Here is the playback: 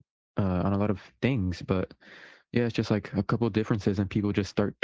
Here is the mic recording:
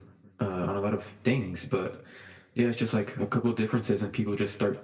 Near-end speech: none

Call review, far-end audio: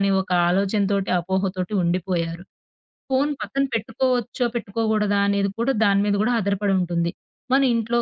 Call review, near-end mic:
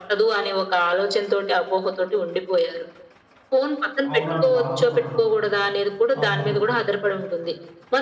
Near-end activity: present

